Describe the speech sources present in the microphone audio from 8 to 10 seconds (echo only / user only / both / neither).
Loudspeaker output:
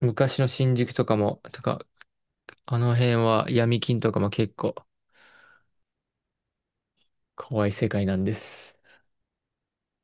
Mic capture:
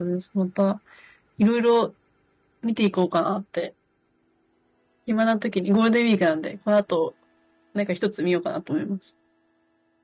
user only